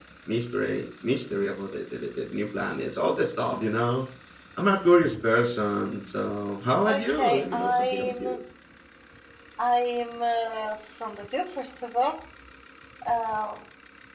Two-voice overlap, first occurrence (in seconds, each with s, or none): 6.8 s